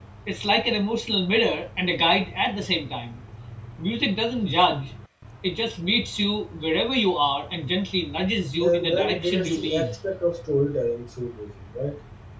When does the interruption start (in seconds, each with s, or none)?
8.6 s